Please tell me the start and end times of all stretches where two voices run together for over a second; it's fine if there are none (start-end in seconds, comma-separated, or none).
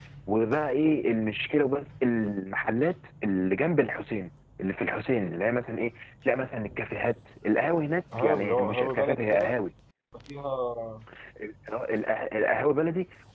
8.2-9.5